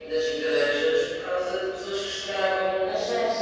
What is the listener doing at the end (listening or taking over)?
taking over